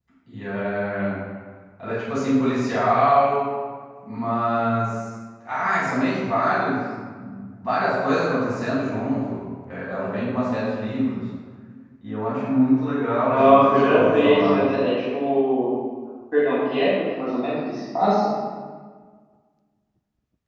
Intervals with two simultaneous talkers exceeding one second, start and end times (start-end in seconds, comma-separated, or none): 13.2-14.6